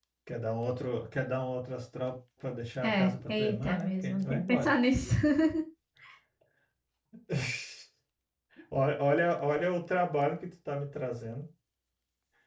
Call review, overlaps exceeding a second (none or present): present